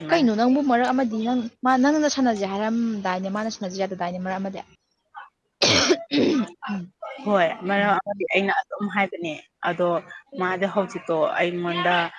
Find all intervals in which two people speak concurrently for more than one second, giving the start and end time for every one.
none

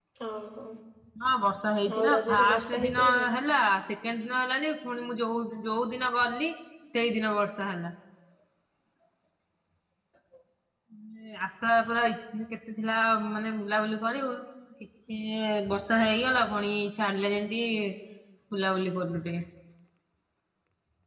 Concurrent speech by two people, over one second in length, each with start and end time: 2.0-3.3

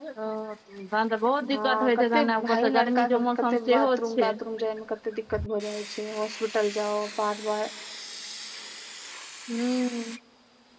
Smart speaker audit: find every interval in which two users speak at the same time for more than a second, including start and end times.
1.5-4.3

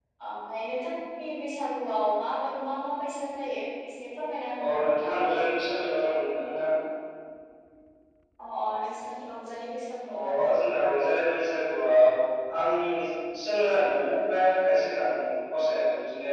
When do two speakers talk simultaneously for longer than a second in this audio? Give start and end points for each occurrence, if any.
none

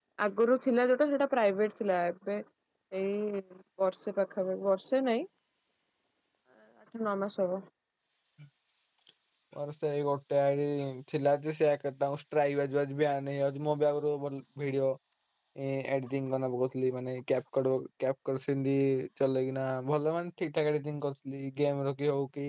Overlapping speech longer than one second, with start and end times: none

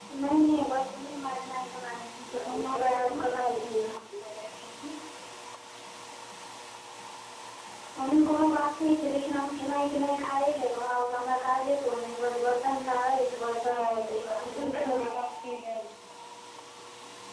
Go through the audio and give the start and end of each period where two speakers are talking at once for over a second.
2.2-3.9, 13.7-15.1

